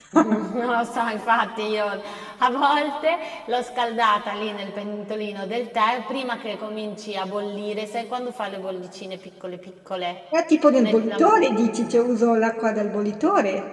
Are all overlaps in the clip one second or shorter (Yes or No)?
Yes